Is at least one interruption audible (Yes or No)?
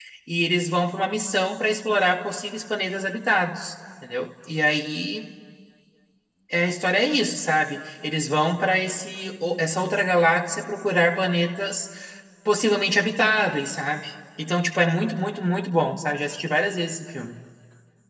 No